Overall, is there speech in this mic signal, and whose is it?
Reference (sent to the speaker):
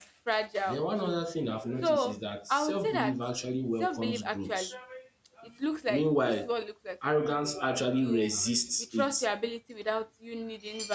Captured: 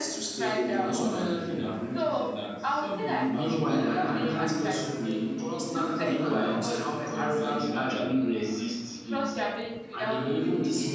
both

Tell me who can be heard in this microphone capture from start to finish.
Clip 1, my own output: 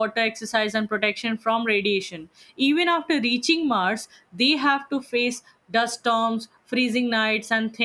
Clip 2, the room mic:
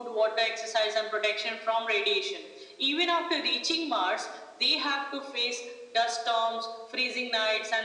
echo only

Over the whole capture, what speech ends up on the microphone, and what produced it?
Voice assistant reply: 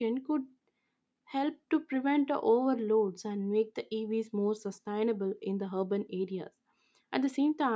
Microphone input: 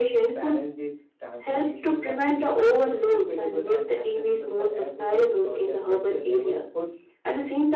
both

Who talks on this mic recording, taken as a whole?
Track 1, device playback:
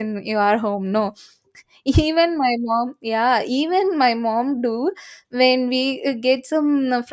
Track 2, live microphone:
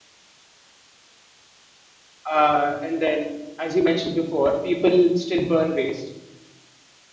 user only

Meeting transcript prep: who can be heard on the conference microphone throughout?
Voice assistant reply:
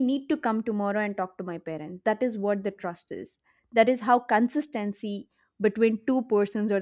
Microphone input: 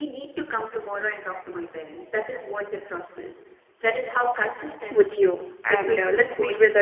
both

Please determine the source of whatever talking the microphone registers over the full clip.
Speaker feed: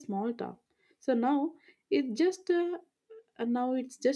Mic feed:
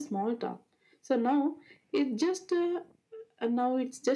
echo only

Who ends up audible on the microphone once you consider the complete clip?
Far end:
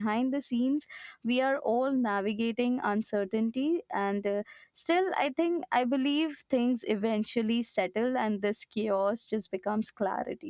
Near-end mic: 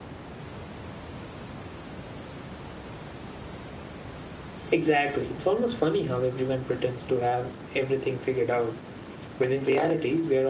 user only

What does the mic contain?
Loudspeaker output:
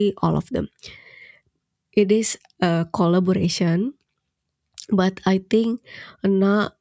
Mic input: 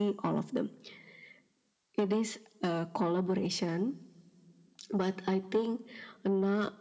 echo only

